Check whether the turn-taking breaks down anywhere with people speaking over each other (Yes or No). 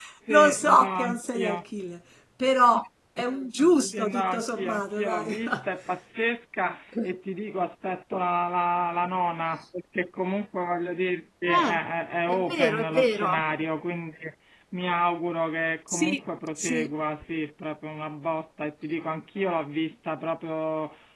Yes